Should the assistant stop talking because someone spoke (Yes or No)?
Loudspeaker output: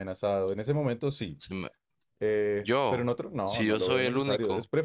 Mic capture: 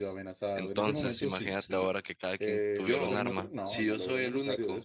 Yes